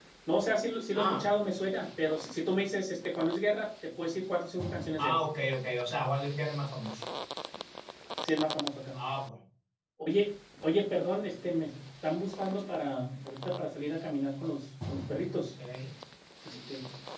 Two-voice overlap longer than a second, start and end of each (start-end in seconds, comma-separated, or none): none